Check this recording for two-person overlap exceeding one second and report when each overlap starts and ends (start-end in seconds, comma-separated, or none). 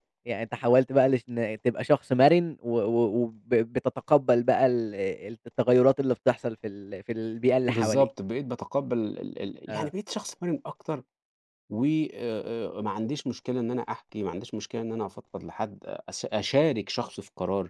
none